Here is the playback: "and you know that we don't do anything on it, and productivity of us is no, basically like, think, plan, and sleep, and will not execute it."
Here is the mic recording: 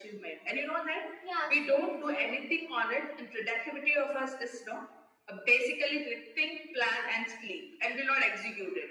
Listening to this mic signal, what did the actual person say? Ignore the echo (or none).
Yeah, so true.